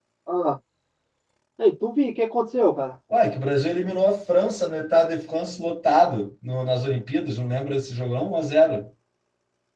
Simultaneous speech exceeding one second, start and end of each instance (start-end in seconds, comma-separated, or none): none